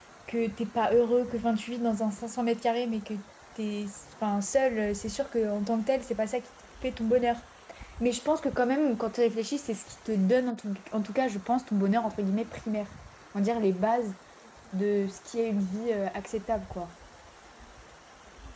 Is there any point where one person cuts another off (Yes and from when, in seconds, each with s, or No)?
No